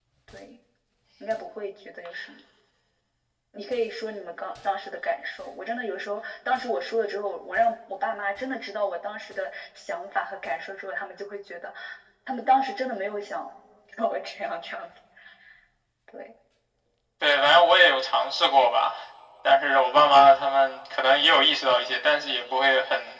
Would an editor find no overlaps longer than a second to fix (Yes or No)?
Yes